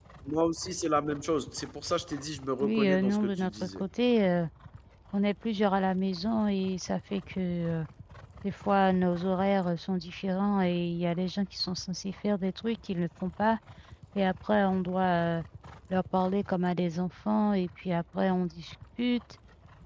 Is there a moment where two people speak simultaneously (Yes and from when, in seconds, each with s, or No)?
Yes, from 2.6 s